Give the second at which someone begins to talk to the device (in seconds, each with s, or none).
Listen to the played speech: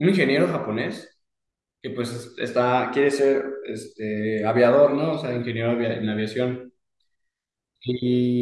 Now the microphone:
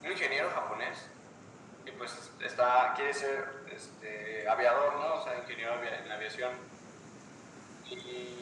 none